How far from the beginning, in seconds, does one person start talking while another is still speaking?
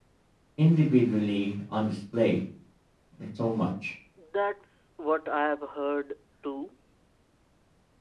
none

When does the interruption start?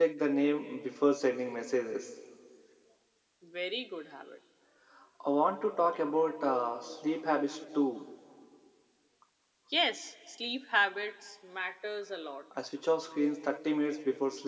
none

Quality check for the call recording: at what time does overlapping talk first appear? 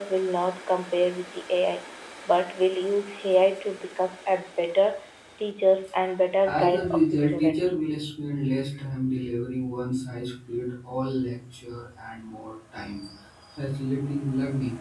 6 s

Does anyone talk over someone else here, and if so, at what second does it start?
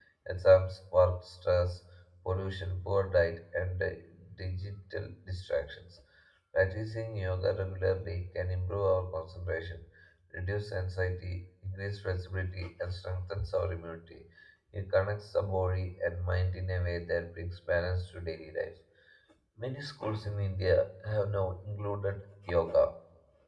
none

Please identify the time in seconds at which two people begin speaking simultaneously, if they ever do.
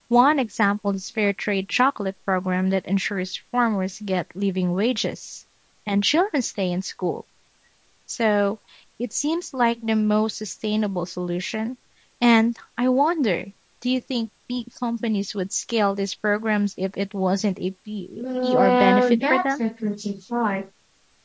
18 s

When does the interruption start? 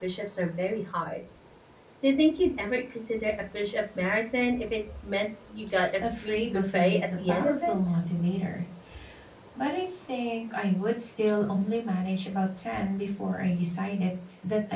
6 s

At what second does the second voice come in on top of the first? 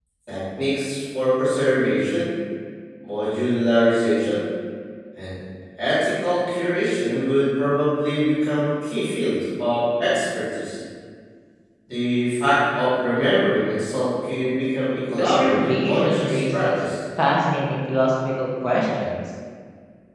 15 s

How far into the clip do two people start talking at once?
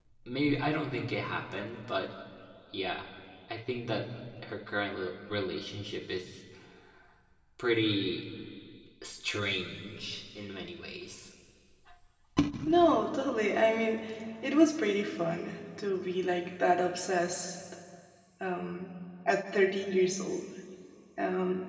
none

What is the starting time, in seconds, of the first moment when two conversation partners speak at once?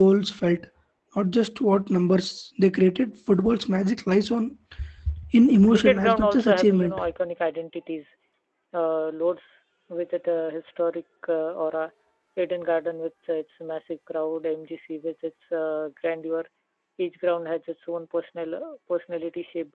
6 s

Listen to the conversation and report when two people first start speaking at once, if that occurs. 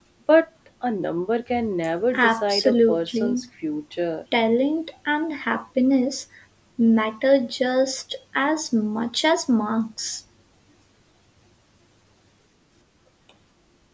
2 s

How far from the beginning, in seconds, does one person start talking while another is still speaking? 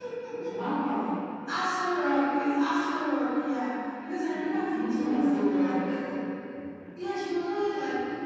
4 s

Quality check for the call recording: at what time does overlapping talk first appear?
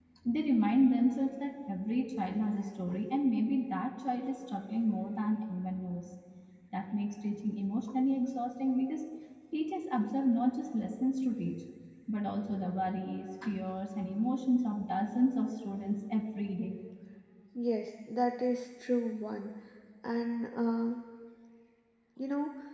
none

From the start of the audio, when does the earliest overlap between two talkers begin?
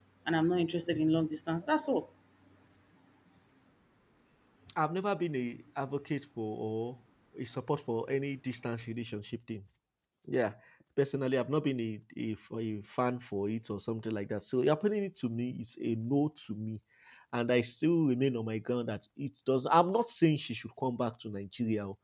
none

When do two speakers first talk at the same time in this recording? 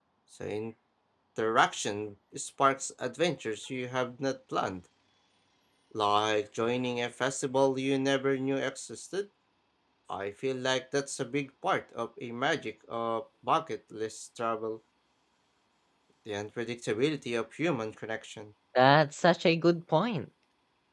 none

